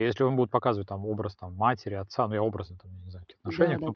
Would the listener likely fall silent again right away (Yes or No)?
Yes